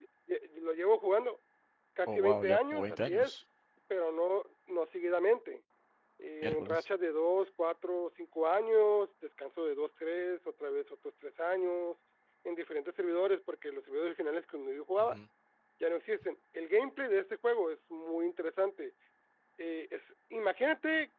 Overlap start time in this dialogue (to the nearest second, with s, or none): 2 s